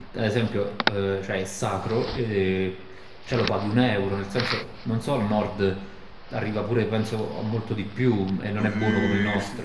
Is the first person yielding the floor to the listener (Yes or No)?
Yes